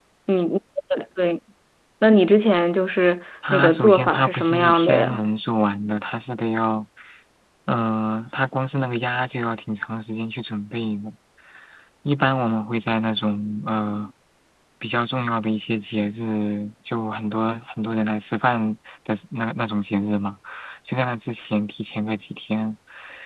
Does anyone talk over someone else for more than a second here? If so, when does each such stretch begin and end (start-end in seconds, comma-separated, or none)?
3.5-5.2